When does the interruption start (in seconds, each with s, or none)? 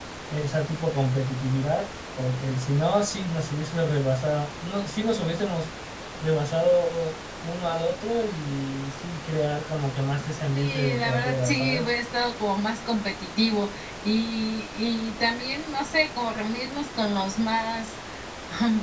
10.5 s